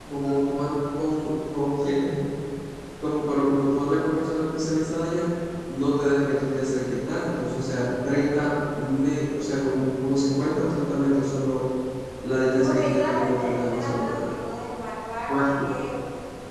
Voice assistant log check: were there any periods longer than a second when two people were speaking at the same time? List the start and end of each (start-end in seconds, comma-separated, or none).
12.6-14.3